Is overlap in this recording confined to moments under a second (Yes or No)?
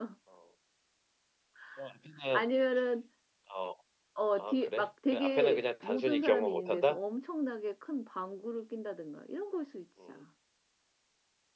No